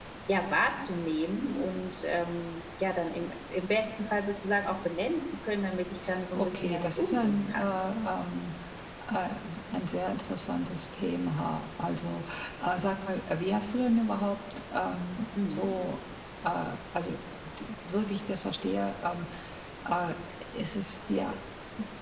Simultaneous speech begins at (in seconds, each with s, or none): 6.3 s